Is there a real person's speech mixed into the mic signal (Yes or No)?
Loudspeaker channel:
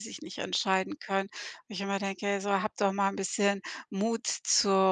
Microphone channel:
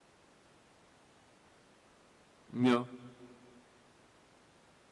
Yes